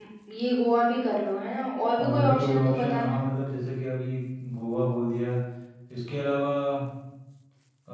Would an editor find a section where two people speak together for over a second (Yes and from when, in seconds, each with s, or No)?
Yes, from 2.0 s